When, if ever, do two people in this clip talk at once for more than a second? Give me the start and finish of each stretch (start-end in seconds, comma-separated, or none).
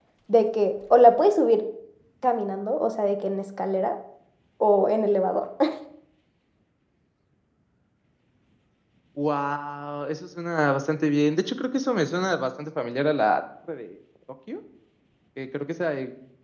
none